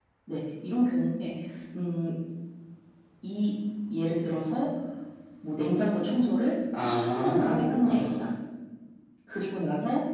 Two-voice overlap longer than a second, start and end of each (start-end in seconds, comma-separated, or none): 6.8-8.3